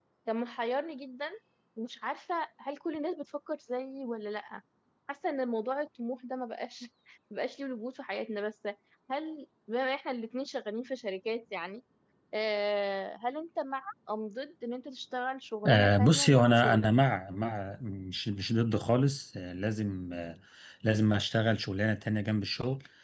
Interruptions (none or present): present